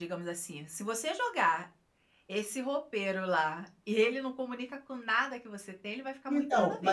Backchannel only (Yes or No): No